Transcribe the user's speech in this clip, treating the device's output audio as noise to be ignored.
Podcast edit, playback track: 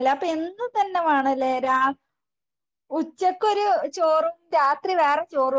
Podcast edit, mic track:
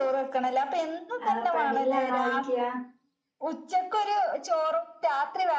ആഹ് പണീലാണോയ്ക്ക്യ

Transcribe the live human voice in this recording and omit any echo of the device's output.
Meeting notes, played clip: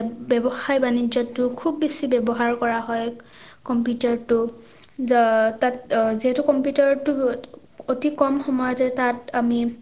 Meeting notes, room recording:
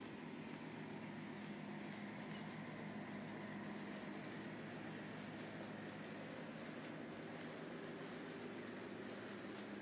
none

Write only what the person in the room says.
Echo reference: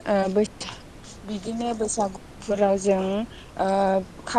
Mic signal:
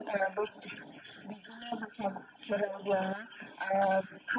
none

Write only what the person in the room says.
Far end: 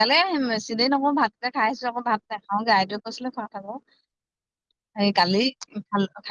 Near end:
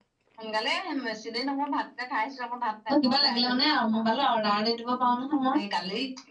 ত', কিবা লাগিলে মানে মোবাইলত অৰ্ডাৰ দি দিব পাৰো নহয় মই।

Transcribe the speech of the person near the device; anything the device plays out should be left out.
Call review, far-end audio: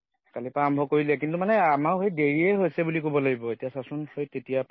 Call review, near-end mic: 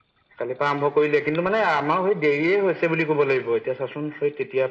none

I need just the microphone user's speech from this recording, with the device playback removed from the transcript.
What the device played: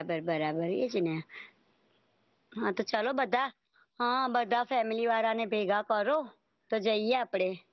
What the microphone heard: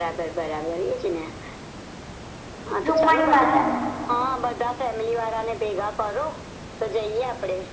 રુકમણી માતાનું

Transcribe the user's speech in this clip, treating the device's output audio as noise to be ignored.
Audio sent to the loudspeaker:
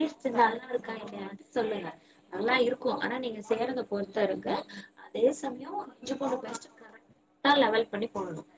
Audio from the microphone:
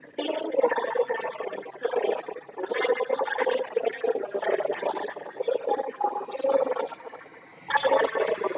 none

